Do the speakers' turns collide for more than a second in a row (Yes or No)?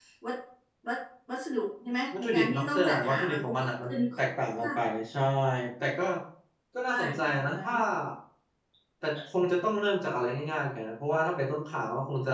Yes